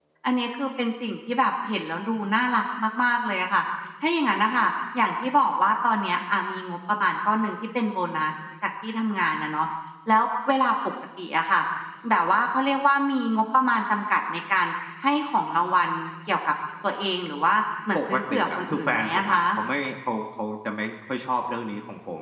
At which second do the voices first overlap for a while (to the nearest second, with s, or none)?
18 s